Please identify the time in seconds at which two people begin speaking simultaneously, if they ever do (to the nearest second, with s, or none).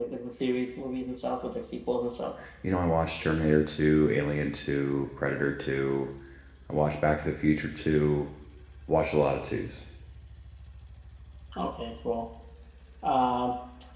none